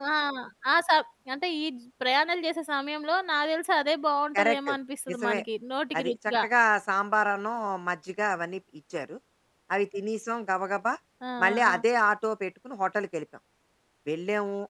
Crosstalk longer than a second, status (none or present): none